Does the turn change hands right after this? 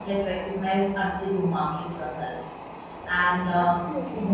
No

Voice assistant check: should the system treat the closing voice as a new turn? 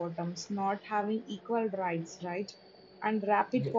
No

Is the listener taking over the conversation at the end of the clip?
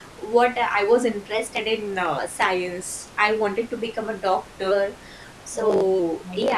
No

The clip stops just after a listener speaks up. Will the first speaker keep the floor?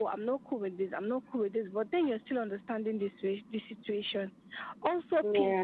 Yes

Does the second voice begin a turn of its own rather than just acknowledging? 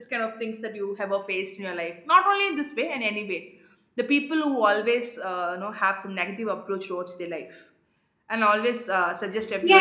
Yes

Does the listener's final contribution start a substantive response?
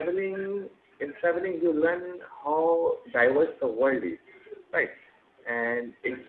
No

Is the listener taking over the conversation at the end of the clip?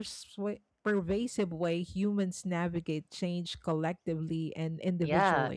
Yes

